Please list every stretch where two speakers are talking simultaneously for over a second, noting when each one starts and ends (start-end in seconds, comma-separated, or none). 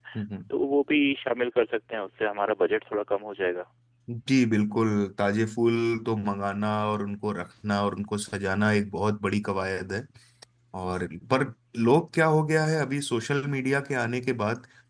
none